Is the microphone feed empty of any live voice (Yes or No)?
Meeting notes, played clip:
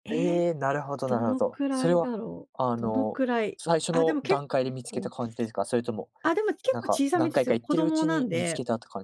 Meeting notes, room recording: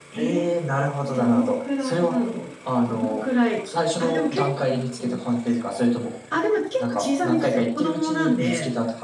Yes